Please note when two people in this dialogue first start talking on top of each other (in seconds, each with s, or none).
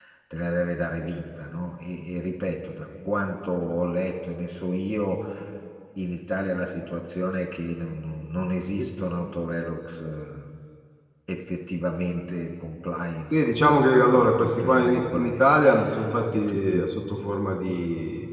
13.3 s